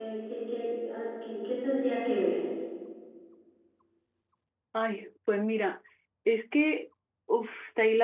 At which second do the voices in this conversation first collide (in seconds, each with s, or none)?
none